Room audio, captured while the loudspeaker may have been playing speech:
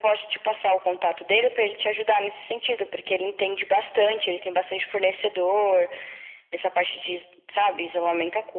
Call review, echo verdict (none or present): present